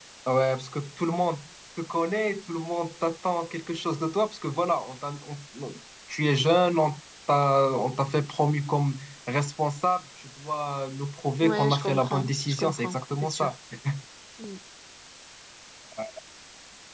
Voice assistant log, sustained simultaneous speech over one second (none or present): present